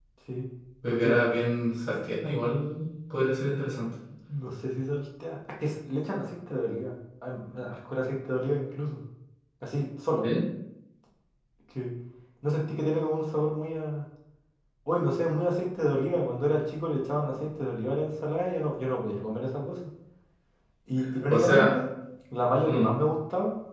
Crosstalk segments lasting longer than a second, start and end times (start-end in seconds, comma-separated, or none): none